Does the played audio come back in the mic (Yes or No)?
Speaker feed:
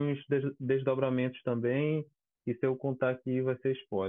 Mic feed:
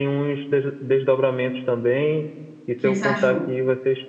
Yes